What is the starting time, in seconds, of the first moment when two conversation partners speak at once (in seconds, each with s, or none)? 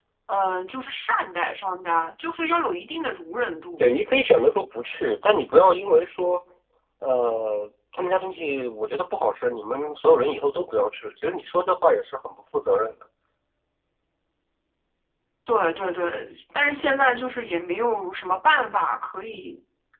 none